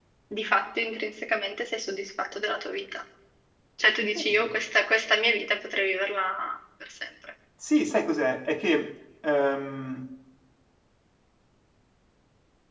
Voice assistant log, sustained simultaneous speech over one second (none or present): none